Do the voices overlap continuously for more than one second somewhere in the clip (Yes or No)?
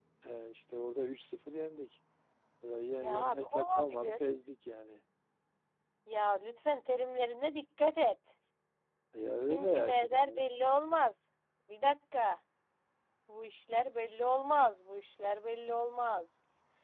Yes